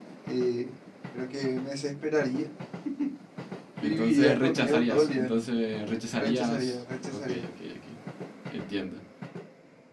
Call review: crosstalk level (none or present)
present